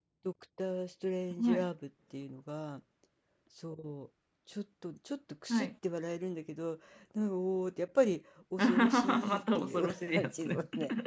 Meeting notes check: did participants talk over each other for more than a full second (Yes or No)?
Yes